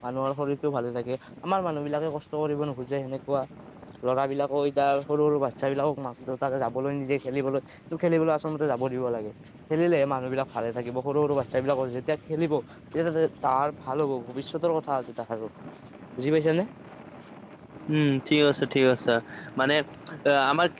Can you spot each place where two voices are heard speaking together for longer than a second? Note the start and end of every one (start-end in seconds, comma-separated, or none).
none